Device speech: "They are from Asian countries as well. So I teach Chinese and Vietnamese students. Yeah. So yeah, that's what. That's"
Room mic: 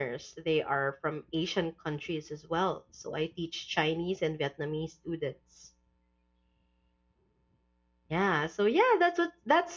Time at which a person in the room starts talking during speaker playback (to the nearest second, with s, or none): none